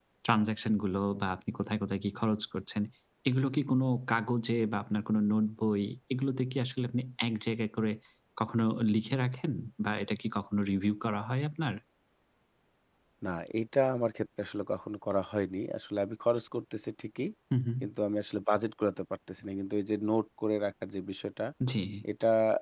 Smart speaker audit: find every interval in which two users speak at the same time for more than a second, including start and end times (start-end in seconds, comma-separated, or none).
none